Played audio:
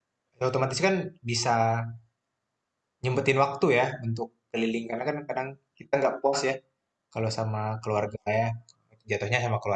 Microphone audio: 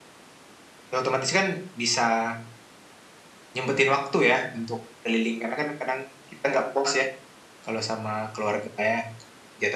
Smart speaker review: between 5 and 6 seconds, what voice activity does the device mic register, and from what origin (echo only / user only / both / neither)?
echo only